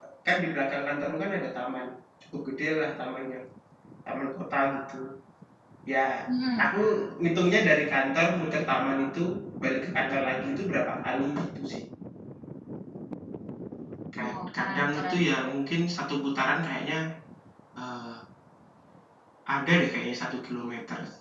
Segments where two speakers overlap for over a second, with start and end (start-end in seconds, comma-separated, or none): 14.2-15.5